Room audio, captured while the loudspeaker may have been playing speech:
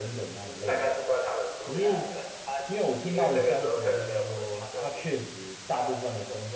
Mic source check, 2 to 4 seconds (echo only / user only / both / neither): both